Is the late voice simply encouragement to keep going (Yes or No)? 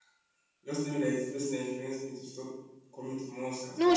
No